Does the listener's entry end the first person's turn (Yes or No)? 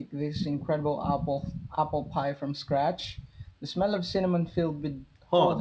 Yes